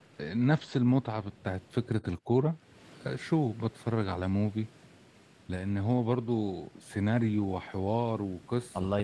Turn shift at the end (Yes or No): Yes